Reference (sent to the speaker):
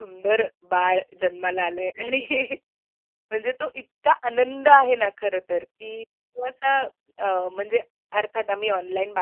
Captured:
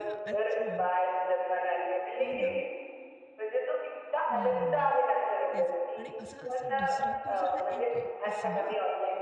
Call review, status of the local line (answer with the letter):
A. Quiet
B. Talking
B